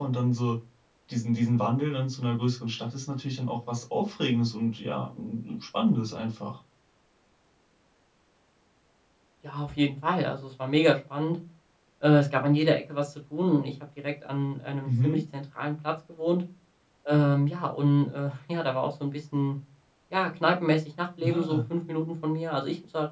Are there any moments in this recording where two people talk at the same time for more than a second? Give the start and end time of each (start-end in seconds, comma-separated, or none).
none